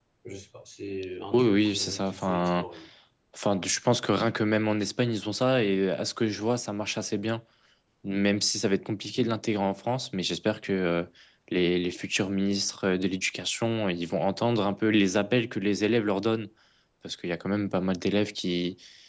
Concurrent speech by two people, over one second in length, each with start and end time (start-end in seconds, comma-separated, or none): 1.3-2.6